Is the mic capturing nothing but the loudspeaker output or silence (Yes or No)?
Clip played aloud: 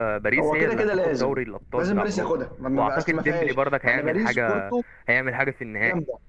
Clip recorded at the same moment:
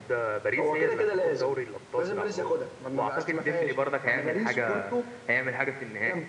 Yes